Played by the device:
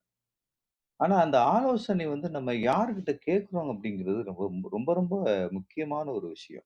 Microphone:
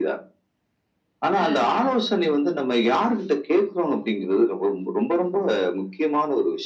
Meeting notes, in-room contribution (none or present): present